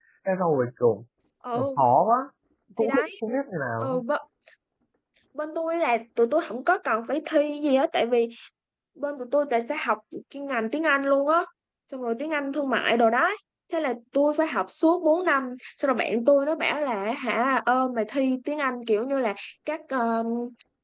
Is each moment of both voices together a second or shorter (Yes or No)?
Yes